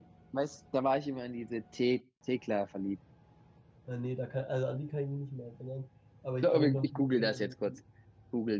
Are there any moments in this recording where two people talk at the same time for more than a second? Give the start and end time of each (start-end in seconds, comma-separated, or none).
6.4-7.7